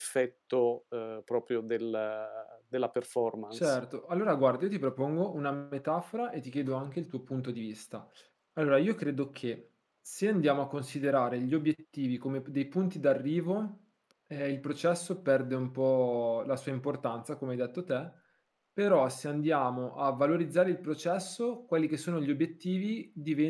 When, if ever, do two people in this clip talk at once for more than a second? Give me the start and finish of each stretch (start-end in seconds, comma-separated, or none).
none